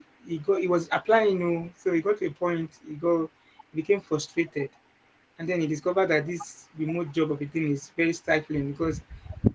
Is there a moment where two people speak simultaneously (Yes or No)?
No